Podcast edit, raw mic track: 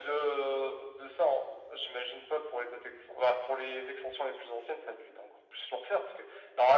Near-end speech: none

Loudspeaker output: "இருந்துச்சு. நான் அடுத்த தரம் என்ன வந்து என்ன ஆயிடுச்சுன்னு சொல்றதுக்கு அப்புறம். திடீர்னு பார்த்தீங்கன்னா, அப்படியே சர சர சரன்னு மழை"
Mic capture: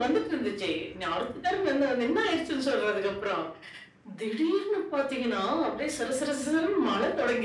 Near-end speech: none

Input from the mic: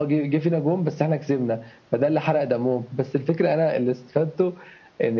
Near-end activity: none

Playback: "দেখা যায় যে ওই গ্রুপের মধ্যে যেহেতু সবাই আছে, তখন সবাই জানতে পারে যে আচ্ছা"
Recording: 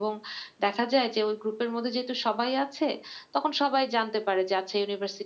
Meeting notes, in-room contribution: none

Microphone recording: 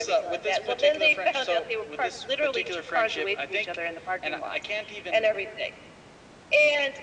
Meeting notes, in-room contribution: none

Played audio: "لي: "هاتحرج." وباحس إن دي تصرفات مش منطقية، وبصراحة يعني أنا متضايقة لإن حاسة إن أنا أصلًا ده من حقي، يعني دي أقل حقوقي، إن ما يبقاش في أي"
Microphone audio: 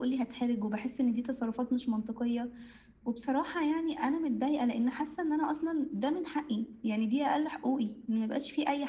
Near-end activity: none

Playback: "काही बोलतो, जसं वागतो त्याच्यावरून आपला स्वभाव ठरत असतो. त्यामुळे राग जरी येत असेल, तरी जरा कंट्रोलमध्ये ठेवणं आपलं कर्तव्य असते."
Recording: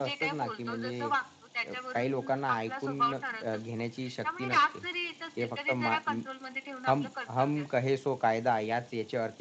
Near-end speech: present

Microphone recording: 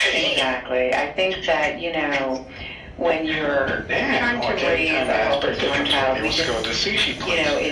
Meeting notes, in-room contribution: none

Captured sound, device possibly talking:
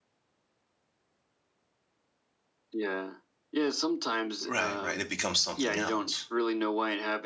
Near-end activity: present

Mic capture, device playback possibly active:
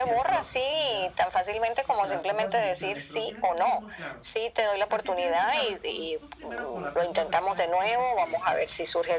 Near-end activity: present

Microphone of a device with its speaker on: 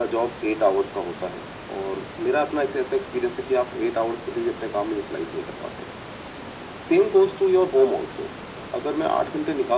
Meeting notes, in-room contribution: none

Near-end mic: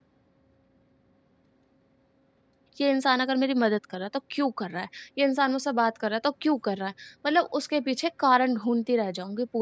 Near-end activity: present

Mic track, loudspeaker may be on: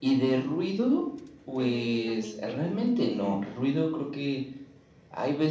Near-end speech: present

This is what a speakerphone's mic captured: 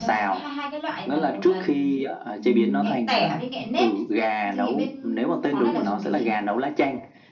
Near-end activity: present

